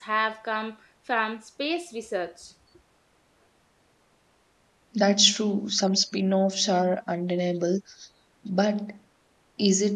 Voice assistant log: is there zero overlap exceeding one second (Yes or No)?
Yes